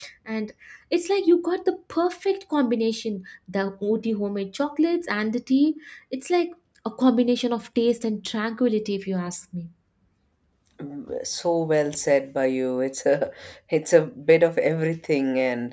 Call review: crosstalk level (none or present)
none